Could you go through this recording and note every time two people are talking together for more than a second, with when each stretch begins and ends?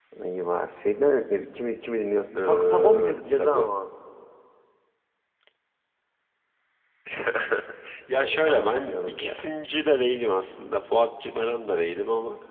2.4-3.7, 8.2-9.4

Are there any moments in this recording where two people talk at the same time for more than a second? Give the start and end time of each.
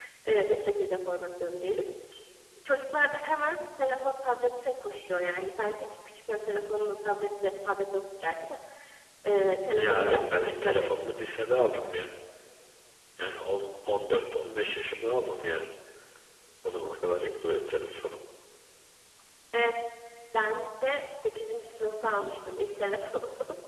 9.8-10.9

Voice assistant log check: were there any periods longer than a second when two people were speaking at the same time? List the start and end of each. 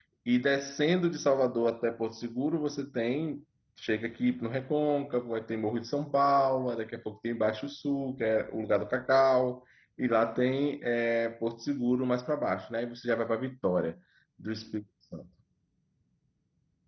none

